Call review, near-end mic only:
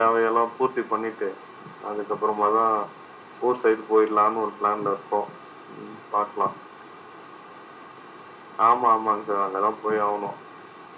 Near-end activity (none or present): none